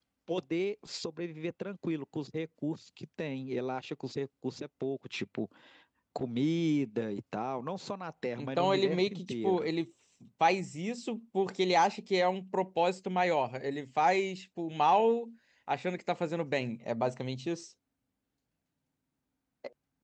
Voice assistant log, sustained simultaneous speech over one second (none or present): present